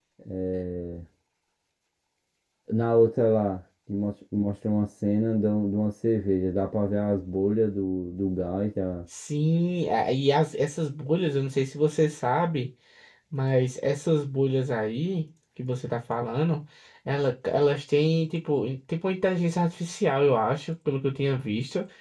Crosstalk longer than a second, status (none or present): none